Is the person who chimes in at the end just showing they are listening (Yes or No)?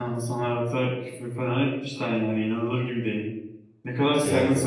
Yes